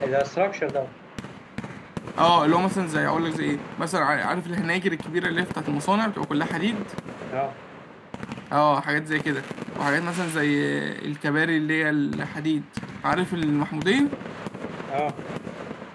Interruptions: none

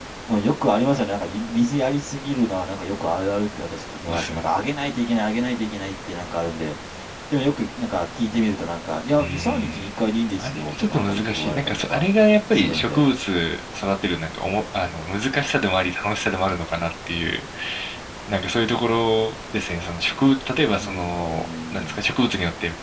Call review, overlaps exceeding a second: present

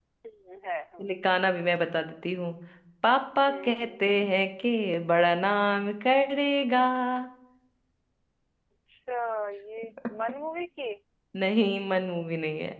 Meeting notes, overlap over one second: none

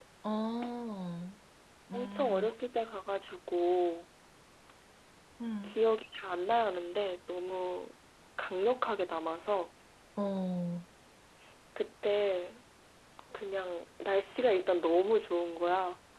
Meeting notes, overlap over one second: none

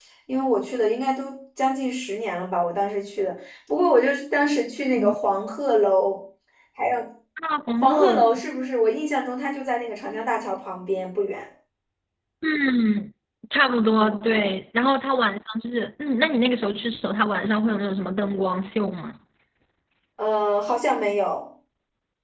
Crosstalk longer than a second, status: none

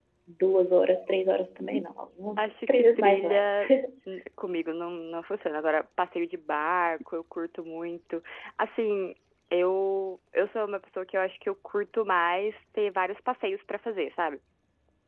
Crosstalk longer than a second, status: present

